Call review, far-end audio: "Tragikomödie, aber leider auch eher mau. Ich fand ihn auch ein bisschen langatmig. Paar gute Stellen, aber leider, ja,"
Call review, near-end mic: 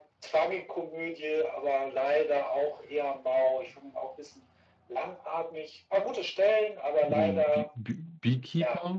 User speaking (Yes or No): Yes